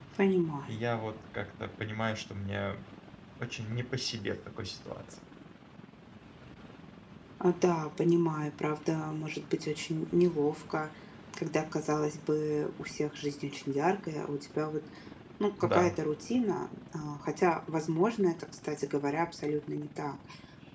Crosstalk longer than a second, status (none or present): none